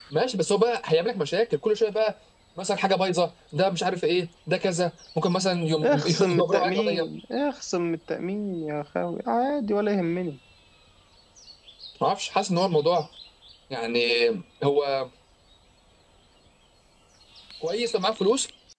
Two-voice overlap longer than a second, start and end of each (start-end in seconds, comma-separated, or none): 5.8-7.1